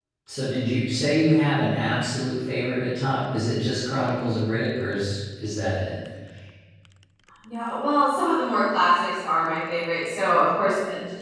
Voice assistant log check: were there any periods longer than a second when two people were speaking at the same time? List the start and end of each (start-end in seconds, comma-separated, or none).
none